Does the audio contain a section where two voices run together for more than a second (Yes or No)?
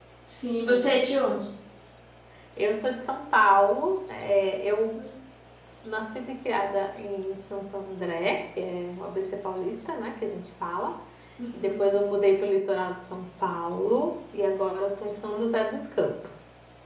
No